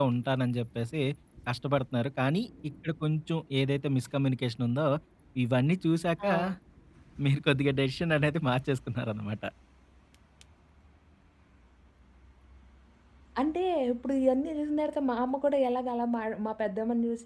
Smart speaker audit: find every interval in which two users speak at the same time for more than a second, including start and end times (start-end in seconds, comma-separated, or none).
none